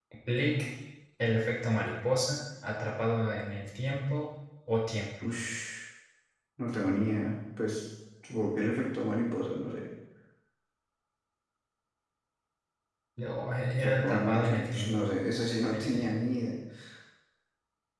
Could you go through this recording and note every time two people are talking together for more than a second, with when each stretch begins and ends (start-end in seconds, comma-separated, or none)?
13.8-15.1